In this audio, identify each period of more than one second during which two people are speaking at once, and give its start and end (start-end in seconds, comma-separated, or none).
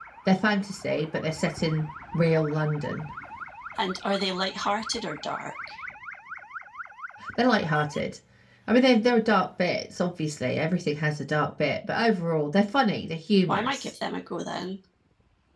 none